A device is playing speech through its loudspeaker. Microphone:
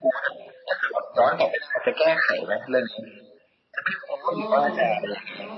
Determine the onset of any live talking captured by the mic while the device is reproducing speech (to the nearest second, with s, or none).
4 s